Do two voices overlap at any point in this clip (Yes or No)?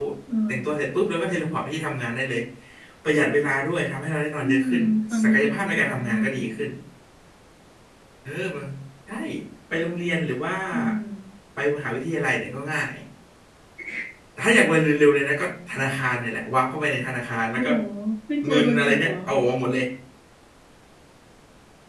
Yes